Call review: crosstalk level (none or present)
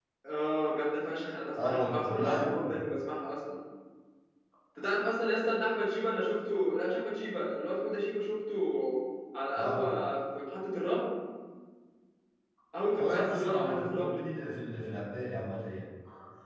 present